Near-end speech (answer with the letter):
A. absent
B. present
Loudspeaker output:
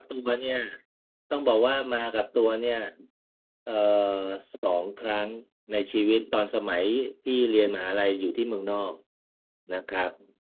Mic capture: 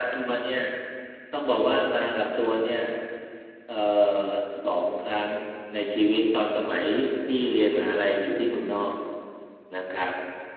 A